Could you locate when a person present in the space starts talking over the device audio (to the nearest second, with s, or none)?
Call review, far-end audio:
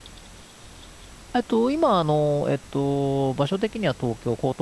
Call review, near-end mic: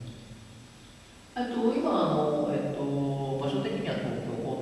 none